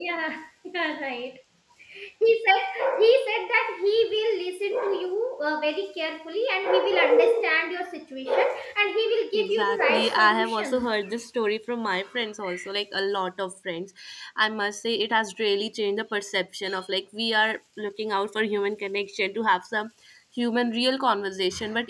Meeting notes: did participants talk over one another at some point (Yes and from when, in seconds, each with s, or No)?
Yes, from 9.3 s